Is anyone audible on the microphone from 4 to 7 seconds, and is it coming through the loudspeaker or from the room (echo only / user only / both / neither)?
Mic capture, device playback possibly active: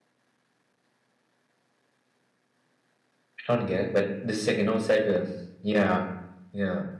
user only